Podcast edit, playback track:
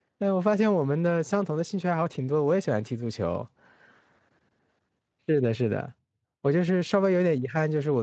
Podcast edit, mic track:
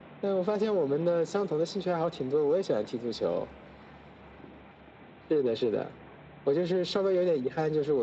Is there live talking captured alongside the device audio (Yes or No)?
No